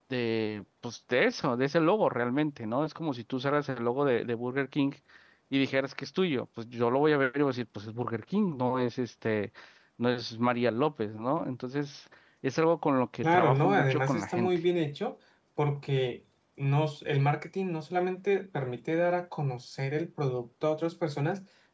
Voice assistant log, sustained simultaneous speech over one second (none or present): present